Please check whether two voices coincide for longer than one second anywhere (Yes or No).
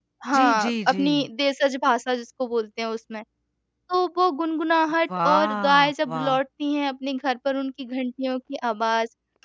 Yes